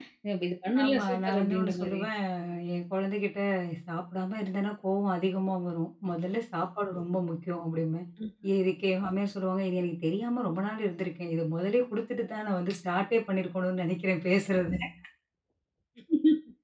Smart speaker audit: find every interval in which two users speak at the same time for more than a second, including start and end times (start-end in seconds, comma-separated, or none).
0.8-2.0